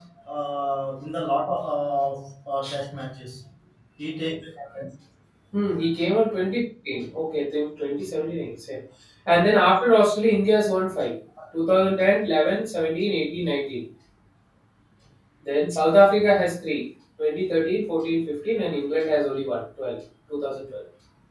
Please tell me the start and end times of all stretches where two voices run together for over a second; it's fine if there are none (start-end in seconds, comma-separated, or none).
none